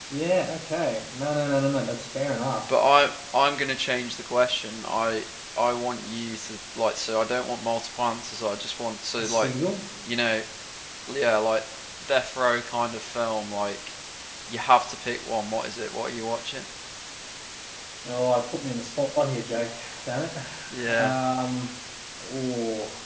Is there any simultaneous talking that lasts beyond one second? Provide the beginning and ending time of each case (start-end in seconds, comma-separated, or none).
none